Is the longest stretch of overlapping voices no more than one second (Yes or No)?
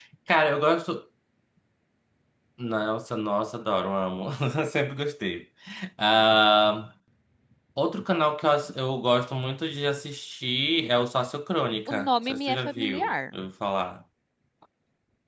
No